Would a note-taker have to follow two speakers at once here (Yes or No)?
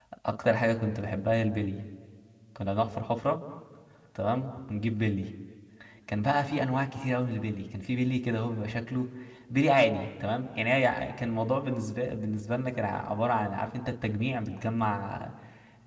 No